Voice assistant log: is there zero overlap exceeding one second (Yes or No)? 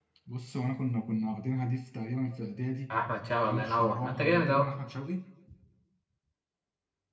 No